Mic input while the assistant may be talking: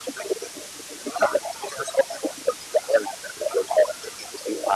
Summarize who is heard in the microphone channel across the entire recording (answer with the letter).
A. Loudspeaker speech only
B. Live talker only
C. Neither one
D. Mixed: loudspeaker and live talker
A